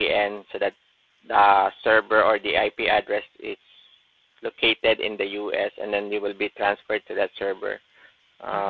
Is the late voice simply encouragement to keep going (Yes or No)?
No